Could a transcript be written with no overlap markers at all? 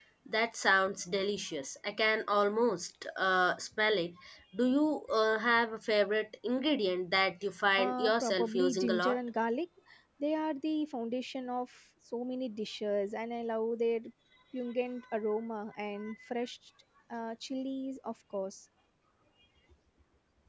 No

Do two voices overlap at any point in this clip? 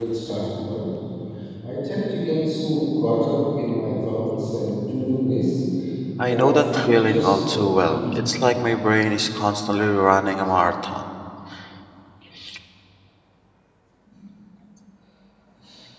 Yes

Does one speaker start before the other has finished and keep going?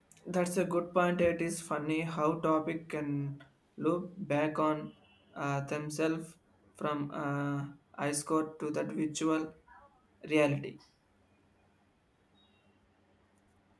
No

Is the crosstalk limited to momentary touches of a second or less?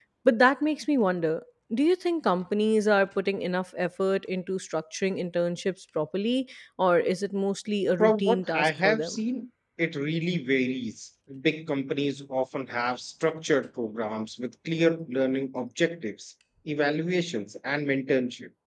No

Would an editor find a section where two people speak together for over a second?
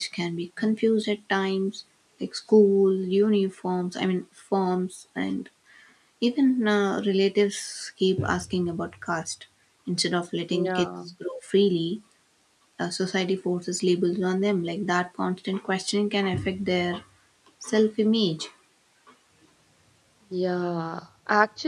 No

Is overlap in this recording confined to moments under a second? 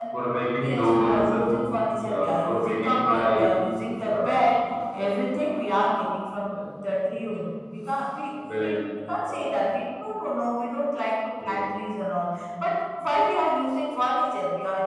No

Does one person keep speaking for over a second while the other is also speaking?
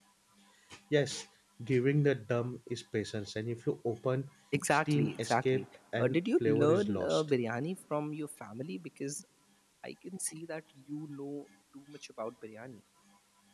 Yes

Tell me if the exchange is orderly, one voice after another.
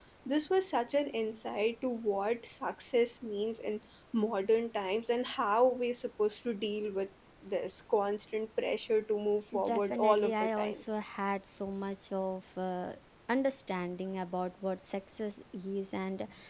No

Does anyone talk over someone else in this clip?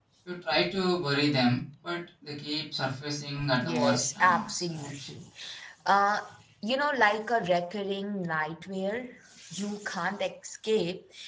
Yes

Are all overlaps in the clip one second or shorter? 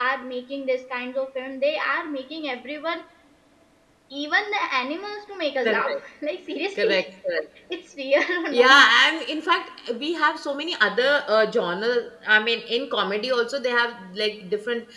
Yes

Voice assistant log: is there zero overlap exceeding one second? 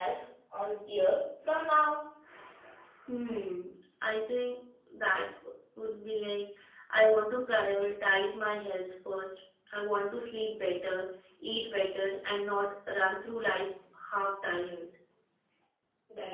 Yes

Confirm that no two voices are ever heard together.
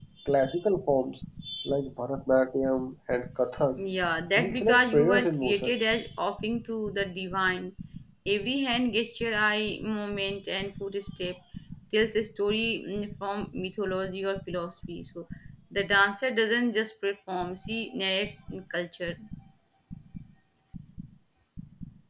No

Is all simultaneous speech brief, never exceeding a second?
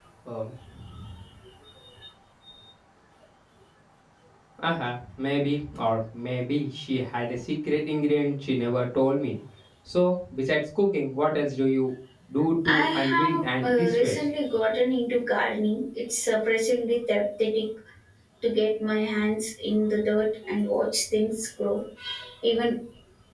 No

